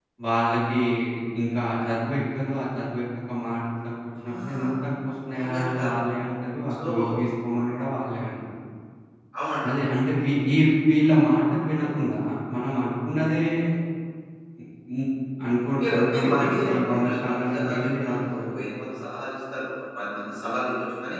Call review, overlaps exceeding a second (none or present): present